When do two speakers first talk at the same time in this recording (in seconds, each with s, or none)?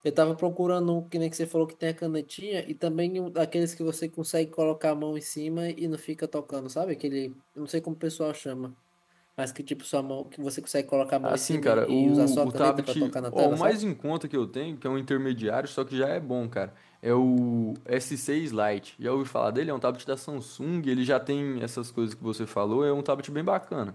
11.2 s